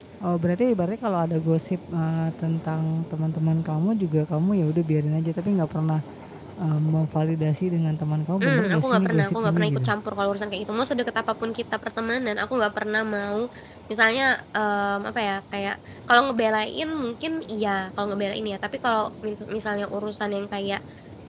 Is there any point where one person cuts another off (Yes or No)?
Yes